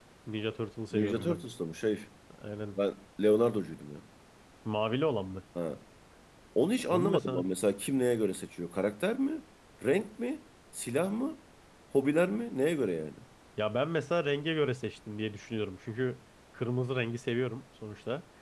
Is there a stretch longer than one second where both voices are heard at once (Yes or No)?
No